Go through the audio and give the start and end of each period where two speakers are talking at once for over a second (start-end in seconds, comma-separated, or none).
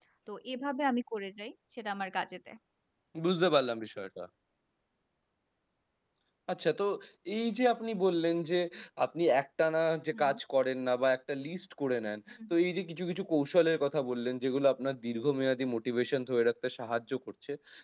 none